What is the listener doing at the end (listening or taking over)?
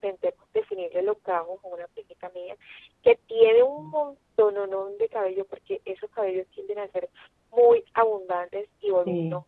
listening